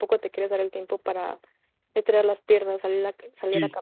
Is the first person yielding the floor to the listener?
No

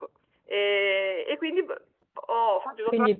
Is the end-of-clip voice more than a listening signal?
Yes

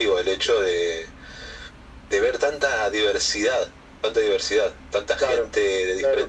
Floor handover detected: Yes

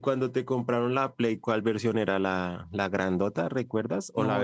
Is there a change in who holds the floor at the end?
Yes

